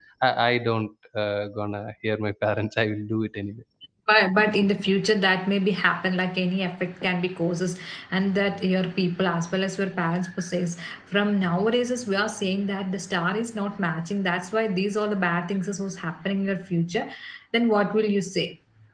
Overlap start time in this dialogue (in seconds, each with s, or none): none